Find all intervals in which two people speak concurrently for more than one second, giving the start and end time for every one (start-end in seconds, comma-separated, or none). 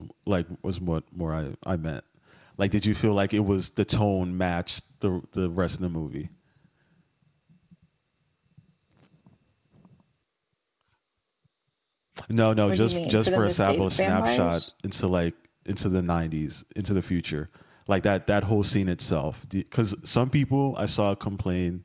12.7-14.6